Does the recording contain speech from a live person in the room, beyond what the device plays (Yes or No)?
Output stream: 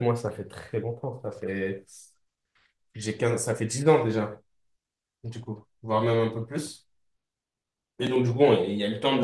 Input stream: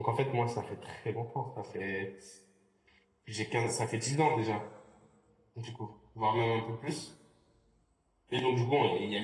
No